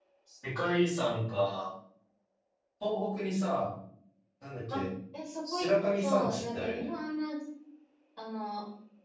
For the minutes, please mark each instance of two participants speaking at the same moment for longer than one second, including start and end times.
5.5-6.9

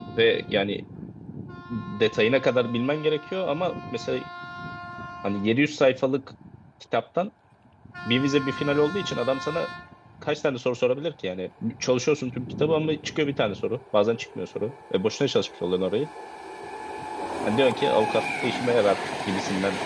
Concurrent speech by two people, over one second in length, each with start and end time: none

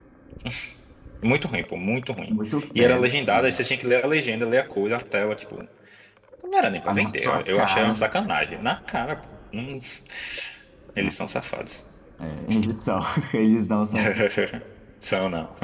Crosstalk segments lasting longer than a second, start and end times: 6.9-8.1

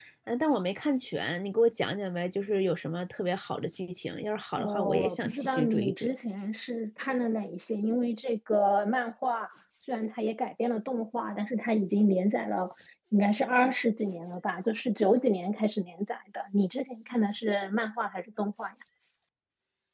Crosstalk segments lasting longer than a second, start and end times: 4.6-6.1

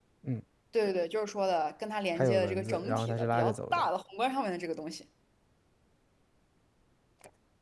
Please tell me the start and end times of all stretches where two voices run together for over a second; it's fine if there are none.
2.1-3.9

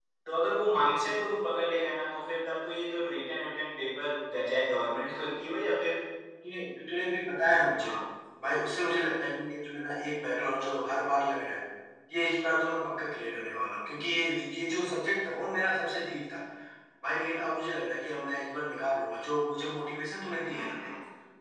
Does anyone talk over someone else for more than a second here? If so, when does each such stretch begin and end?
none

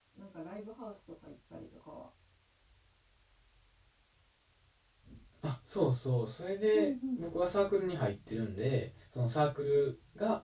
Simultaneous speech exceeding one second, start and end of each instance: none

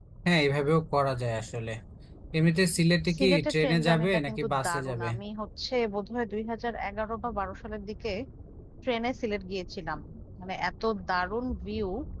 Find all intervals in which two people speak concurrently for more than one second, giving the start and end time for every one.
3.2-5.1

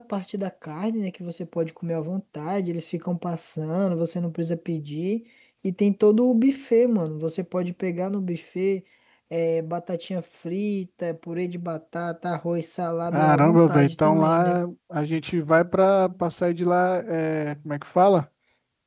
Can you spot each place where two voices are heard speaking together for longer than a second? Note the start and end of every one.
13.1-14.6

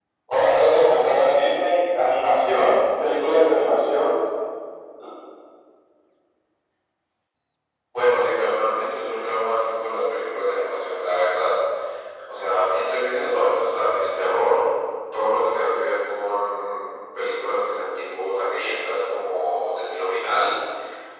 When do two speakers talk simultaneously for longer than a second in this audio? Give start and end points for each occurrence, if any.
none

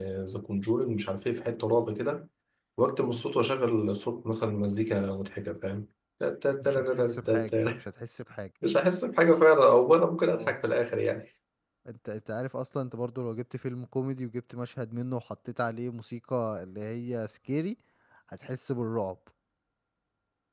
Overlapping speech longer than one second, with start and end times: 6.6-7.8

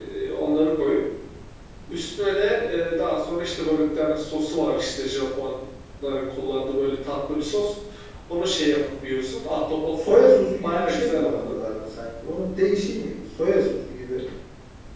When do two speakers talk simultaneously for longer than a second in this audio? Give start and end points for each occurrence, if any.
10.0-11.6

